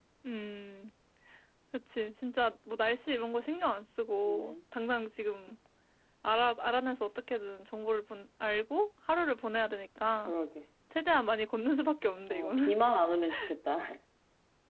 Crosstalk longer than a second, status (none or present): none